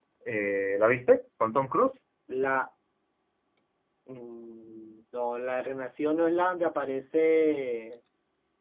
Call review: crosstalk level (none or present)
none